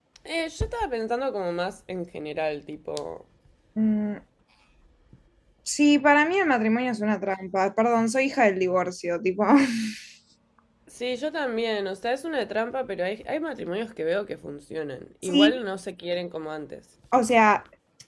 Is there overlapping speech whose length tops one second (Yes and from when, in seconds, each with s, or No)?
No